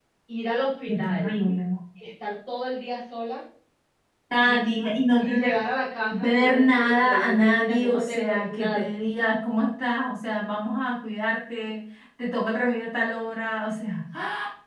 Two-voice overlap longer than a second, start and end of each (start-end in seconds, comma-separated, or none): 6.1-8.9